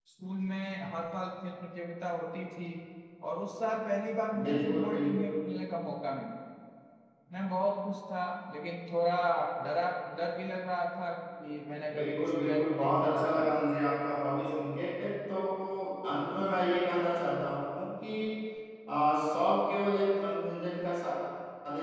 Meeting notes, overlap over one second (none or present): present